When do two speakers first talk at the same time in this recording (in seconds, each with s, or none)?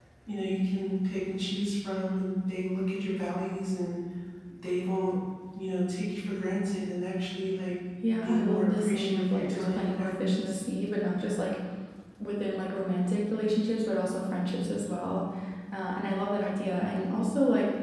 8.0 s